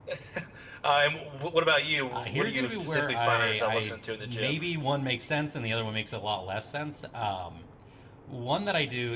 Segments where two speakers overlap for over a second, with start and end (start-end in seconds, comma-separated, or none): 2.1-4.6